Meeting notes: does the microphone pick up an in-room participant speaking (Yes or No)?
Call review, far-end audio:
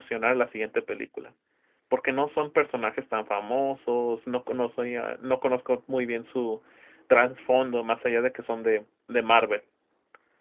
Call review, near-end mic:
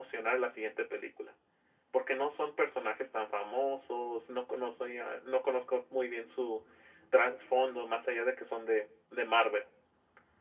No